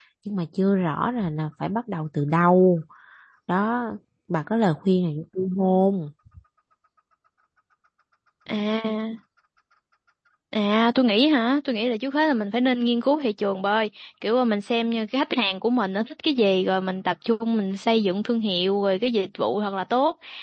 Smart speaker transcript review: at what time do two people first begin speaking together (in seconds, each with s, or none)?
none